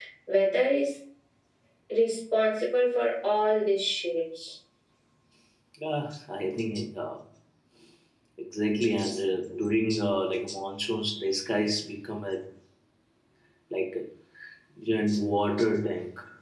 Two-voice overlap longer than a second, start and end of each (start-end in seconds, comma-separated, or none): none